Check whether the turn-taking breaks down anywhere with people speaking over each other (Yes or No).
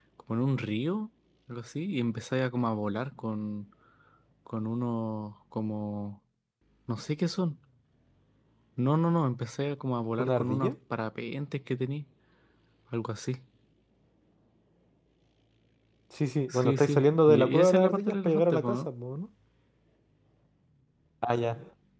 Yes